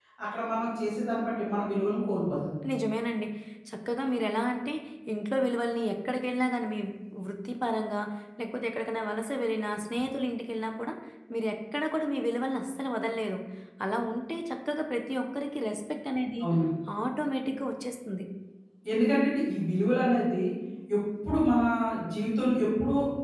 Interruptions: none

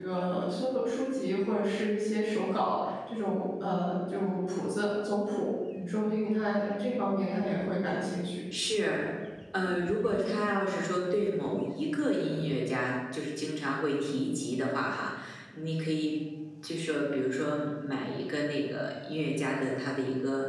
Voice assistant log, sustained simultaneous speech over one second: none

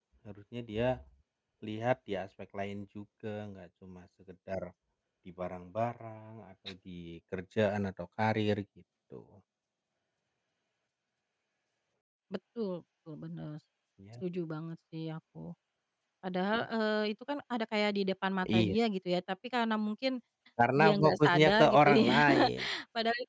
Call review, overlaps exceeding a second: present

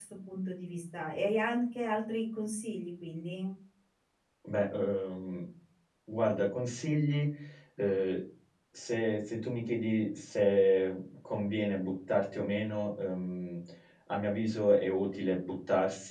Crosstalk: none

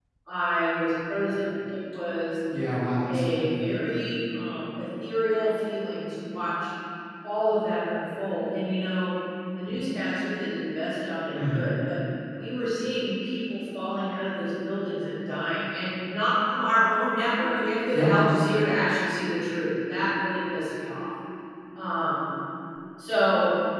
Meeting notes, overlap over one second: none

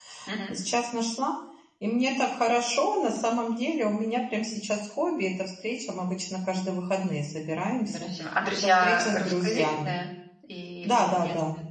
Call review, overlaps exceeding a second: present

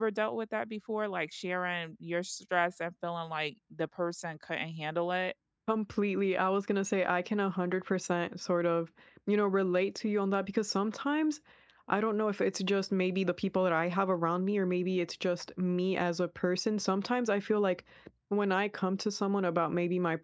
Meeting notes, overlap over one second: none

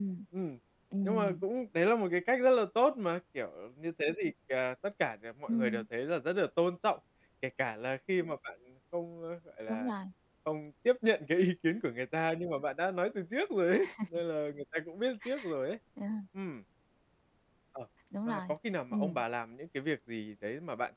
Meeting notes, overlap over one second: none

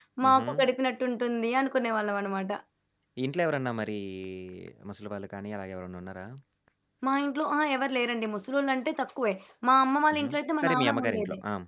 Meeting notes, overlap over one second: present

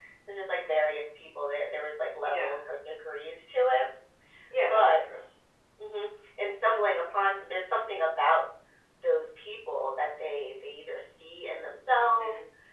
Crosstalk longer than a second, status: none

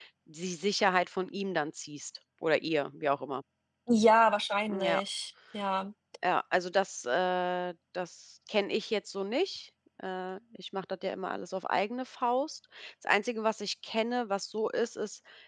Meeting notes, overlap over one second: none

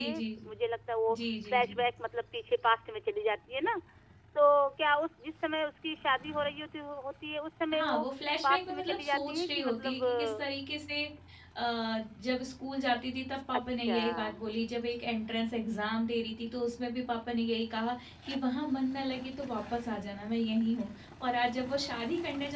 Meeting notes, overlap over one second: present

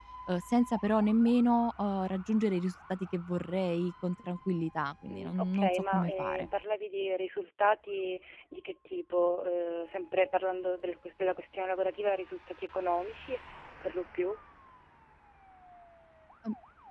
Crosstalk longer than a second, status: present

